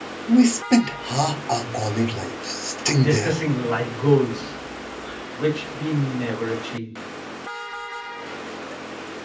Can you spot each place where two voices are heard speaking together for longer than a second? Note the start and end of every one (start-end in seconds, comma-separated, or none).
none